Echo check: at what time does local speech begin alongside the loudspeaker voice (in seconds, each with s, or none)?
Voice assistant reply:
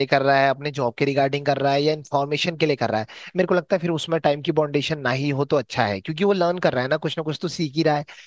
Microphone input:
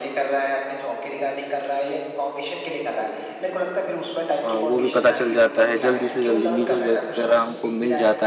4.4 s